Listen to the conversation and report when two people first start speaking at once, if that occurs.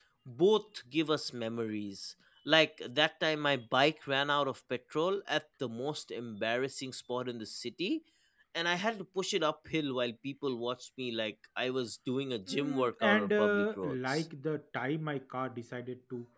12.5 s

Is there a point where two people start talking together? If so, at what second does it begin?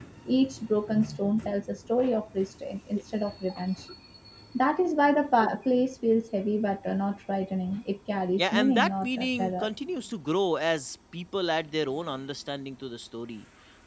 8.4 s

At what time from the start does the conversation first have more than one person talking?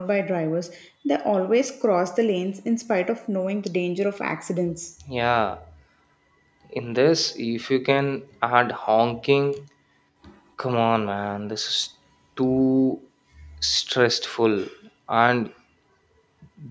none

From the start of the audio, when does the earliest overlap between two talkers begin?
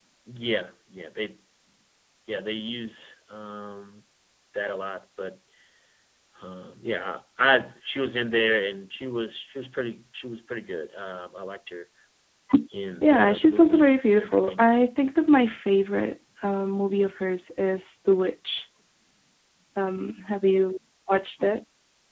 13.0 s

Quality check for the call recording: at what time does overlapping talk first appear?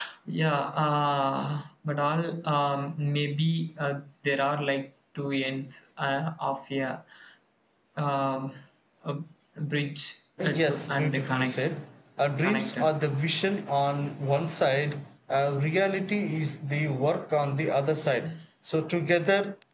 10.4 s

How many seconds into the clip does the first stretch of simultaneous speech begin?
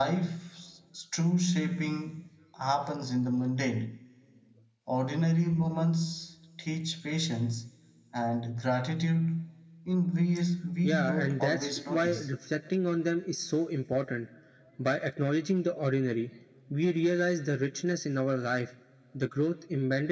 10.8 s

